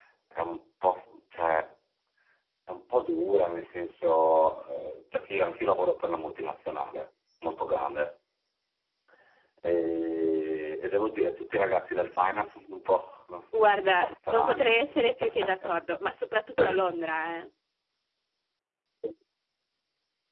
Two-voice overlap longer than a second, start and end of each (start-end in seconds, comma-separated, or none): 13.5-14.8